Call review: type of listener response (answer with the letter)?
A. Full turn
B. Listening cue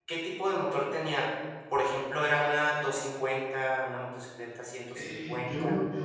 A